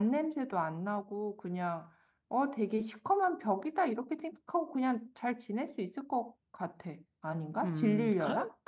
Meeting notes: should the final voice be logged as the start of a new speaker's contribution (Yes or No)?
Yes